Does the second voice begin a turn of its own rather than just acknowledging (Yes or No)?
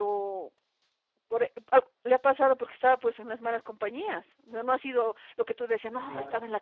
No